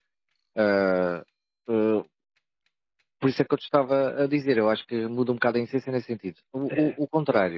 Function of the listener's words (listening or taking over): listening